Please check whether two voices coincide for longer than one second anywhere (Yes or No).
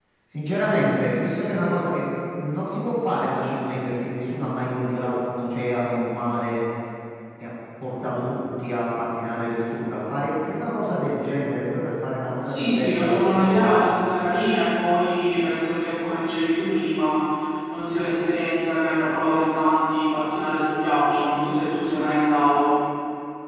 Yes